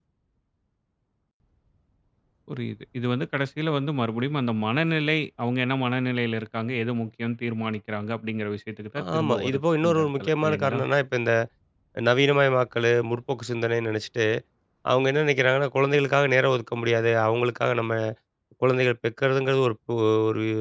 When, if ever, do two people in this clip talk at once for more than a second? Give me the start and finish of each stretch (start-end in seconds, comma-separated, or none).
9.0-10.8